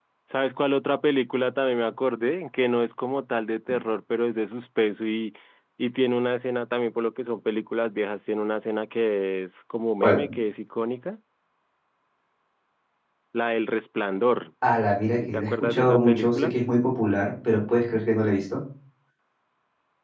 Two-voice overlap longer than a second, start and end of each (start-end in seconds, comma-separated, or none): 15.3-16.5